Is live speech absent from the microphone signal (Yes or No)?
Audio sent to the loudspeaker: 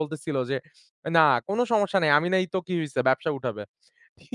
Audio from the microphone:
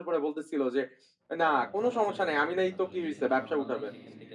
No